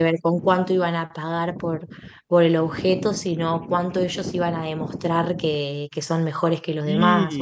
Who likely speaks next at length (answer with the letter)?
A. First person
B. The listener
B